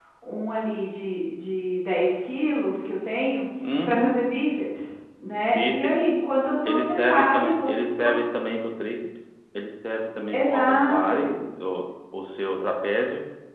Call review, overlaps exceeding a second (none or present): present